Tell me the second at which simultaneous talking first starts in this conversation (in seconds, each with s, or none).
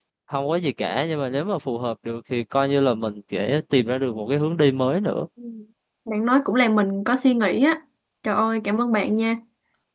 none